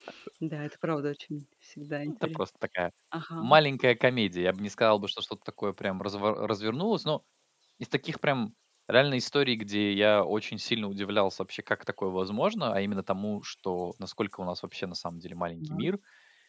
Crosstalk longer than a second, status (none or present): none